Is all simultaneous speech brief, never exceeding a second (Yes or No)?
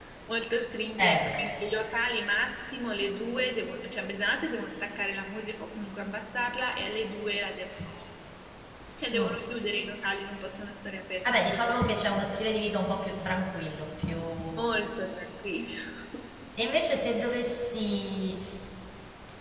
Yes